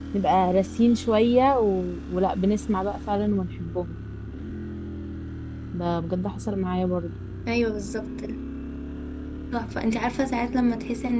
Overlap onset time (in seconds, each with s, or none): none